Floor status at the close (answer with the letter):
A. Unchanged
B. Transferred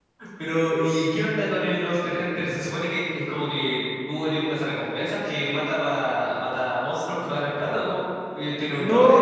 B